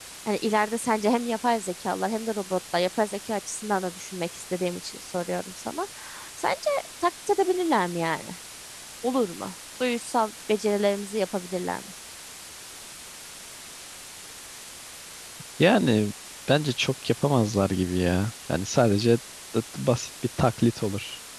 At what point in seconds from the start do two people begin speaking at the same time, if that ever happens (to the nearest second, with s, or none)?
none